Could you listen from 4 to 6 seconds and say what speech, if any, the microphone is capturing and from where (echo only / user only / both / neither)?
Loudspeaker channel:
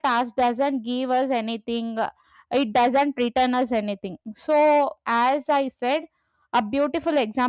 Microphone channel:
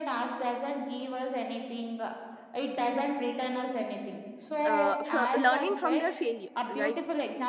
both